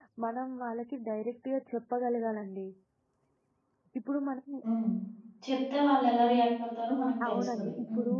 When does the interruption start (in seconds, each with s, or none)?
6.9 s